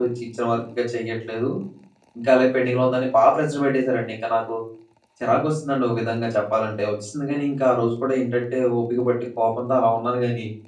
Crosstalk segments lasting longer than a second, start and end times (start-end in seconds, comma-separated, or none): none